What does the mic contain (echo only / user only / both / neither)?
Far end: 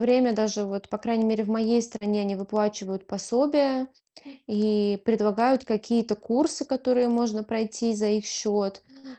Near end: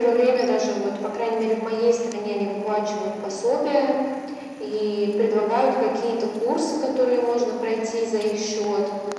echo only